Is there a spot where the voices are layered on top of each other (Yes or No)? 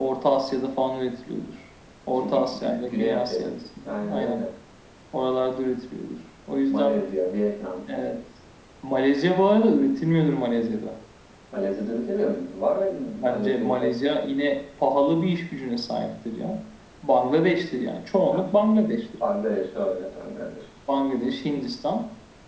Yes